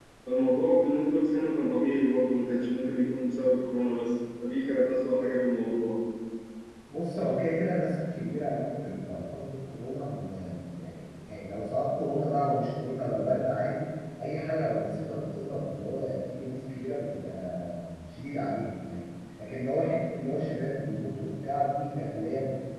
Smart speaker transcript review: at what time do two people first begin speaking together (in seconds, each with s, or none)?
none